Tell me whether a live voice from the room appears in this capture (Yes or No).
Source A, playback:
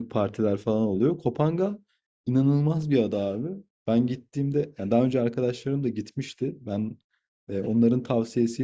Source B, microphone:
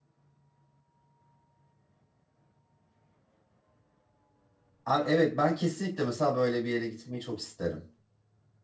Yes